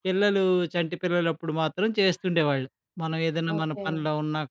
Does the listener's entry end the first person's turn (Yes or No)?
No